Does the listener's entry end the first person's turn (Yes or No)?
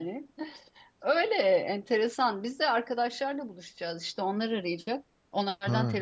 No